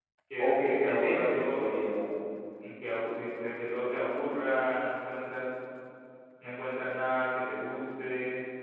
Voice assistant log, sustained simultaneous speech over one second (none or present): present